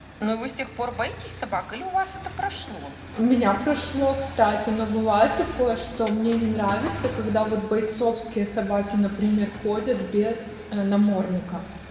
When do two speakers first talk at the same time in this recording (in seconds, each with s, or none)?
none